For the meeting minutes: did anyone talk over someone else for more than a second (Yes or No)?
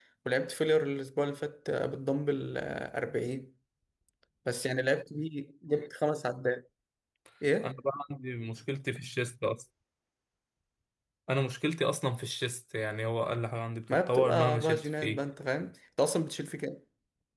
Yes